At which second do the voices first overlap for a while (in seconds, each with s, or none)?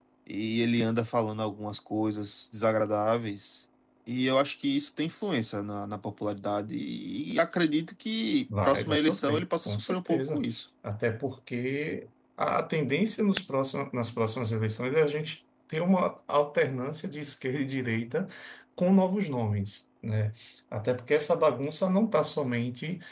8.5 s